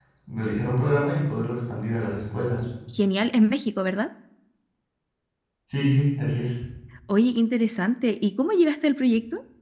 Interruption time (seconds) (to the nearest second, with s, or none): none